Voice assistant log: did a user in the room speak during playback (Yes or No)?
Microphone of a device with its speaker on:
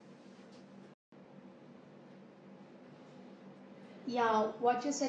Yes